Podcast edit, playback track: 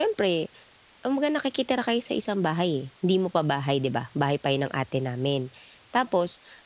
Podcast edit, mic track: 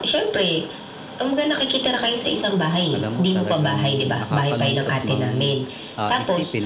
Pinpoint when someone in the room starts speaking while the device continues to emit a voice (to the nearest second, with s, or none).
3 s